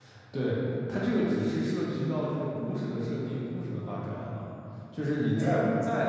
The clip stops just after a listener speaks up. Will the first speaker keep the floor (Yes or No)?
Yes